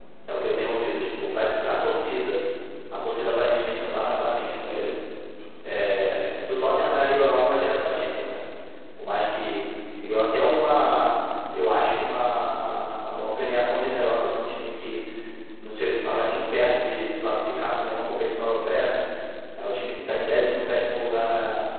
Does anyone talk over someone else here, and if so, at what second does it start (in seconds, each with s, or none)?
none